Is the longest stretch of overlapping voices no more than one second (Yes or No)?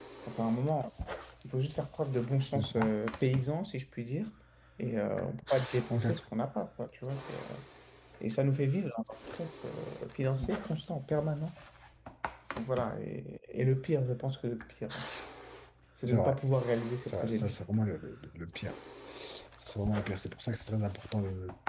Yes